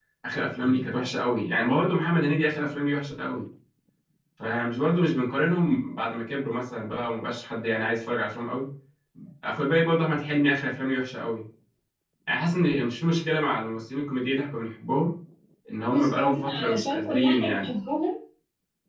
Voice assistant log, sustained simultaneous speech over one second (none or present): present